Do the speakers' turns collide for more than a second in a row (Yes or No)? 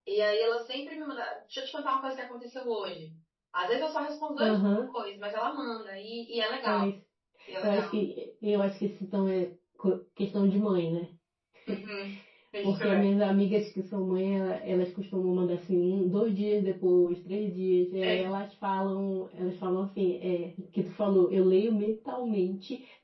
No